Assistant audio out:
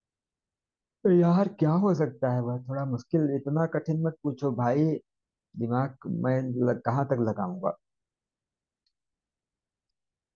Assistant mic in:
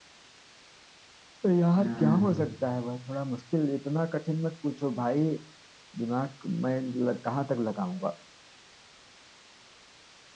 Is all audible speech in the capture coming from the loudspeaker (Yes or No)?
No